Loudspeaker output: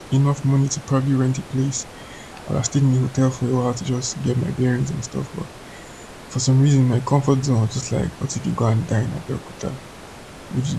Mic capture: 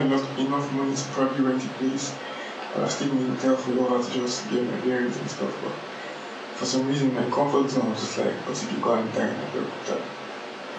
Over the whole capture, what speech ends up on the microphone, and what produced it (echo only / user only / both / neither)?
echo only